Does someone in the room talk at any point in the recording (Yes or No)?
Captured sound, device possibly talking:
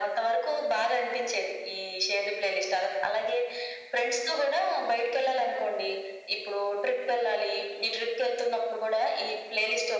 No